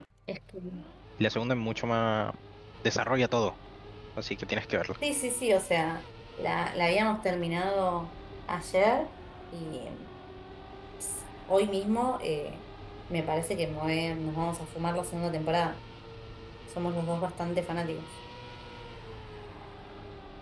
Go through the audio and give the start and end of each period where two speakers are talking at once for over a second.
none

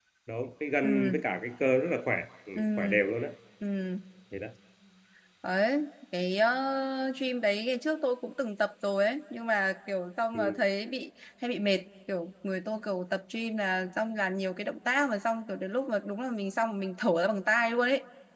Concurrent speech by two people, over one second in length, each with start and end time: none

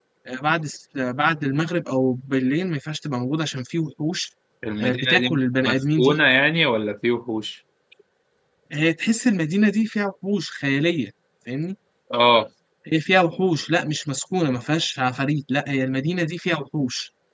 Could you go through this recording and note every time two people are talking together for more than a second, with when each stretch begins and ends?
4.8-6.2

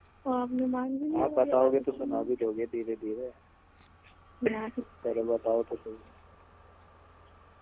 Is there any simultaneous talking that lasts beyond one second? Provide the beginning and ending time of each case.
1.2-2.5

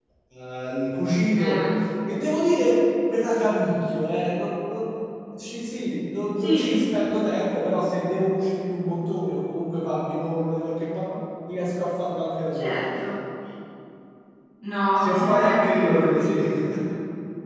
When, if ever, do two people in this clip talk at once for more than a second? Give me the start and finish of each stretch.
15.0-16.4

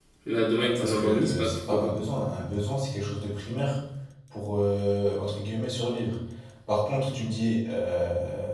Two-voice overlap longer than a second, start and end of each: 0.6-1.9

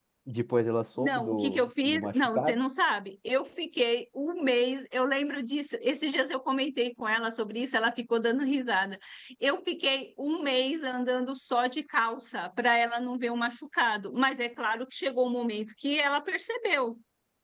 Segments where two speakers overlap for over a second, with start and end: 1.0-2.6

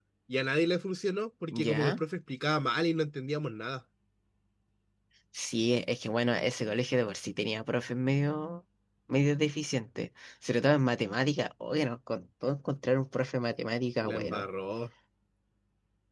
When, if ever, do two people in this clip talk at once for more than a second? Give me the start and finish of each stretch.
none

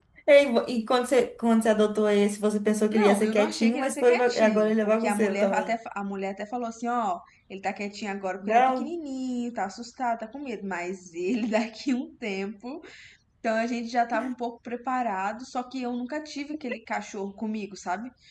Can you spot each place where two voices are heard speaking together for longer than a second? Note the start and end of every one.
2.9-5.7

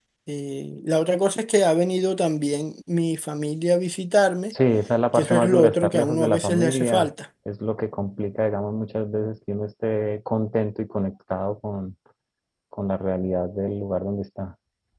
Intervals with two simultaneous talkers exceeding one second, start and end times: 5.1-7.1

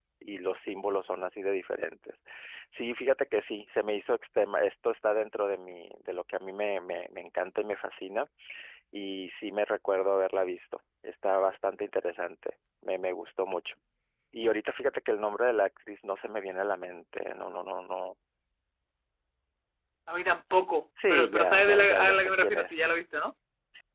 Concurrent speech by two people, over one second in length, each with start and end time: 21.1-22.8

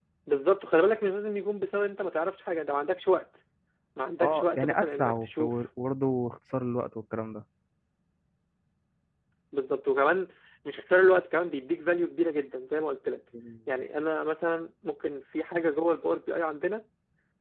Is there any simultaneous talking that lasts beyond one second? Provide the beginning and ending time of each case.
4.2-5.5

